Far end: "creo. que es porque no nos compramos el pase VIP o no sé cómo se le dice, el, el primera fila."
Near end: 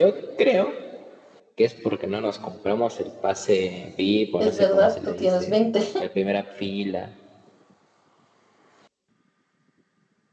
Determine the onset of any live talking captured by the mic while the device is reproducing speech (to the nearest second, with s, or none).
4 s